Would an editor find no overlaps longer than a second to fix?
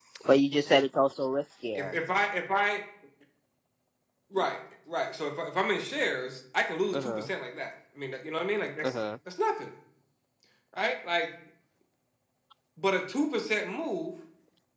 Yes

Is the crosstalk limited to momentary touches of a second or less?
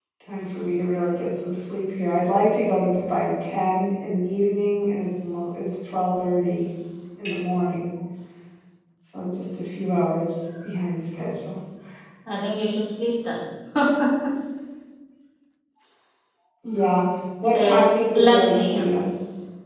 No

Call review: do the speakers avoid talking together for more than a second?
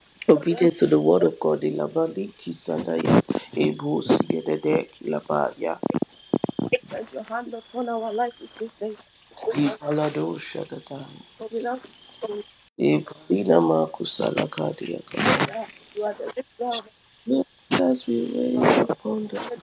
Yes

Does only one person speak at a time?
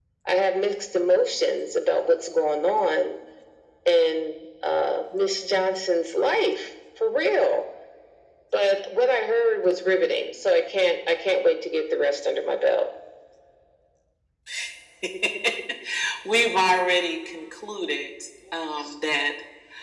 Yes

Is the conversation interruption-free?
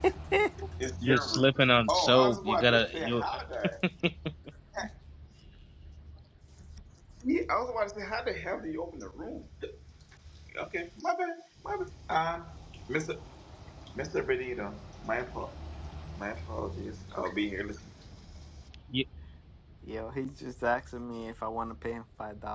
No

